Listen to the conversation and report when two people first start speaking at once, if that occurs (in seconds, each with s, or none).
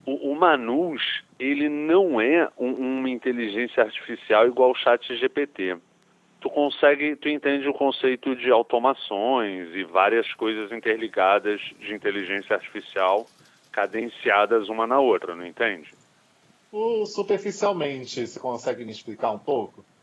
none